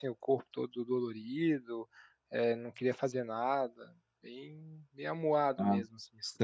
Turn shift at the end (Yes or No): Yes